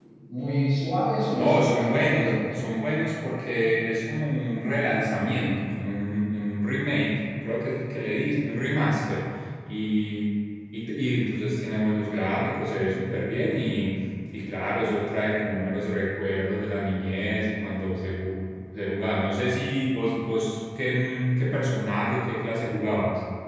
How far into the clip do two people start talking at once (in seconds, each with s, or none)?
1.3 s